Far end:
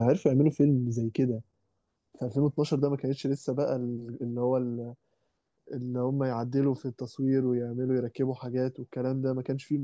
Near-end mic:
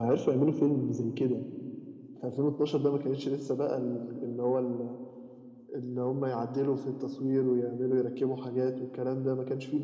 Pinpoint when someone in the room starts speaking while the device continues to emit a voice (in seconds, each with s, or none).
none